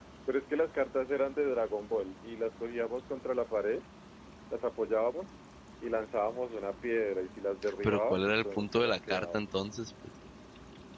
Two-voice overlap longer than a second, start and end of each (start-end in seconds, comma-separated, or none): 7.8-9.4